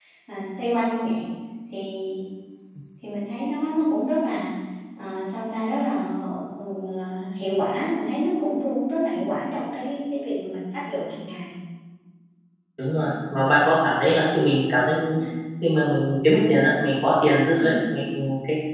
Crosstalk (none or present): none